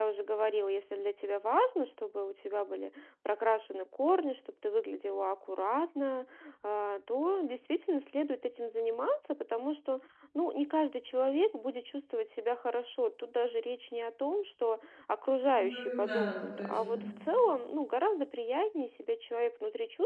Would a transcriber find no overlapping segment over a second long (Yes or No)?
No